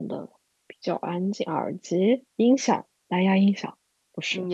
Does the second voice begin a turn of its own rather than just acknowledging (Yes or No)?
Yes